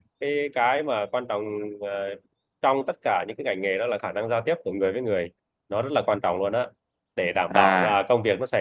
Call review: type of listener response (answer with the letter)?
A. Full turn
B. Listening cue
B